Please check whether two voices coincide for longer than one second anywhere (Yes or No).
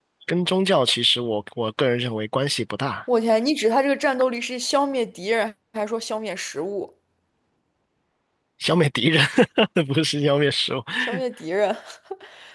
No